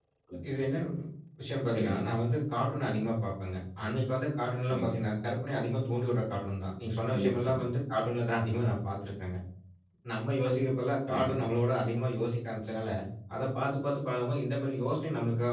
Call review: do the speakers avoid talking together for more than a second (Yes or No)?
Yes